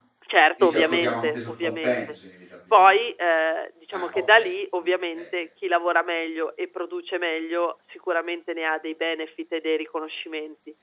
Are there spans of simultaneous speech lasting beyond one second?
Yes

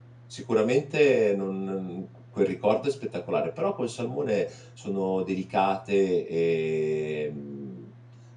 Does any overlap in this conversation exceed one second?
No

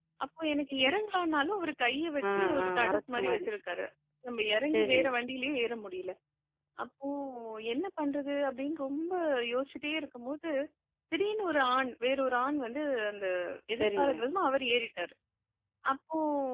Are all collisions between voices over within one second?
No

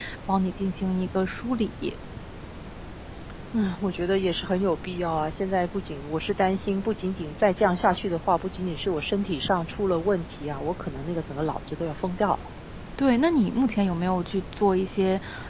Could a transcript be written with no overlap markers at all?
Yes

